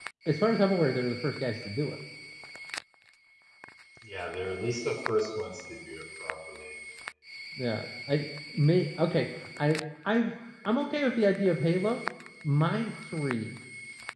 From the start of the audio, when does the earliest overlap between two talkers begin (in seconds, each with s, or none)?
none